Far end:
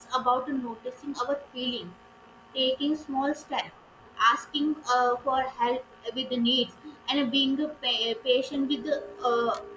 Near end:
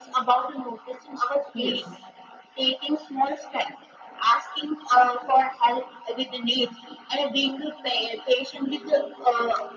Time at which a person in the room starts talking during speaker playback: 1.5 s

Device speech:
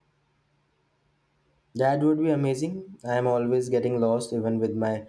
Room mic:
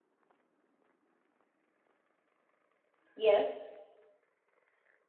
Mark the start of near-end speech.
3.2 s

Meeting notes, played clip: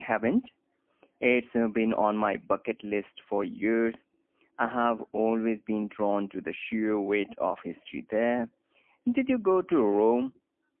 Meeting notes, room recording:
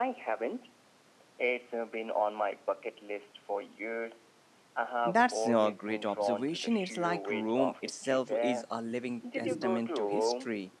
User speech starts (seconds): 5.0 s

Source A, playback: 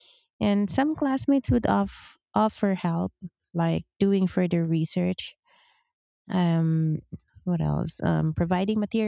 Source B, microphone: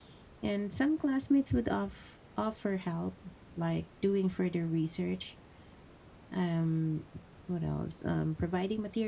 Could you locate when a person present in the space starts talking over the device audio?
none

